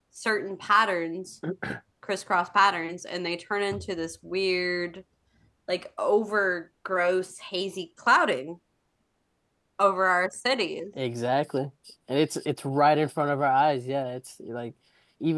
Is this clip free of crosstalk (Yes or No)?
Yes